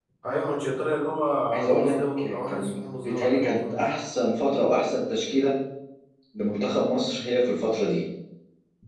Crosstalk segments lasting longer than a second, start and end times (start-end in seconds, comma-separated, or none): 2.5-3.9